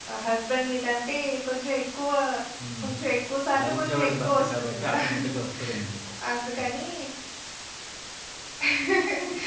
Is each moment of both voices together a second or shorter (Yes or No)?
No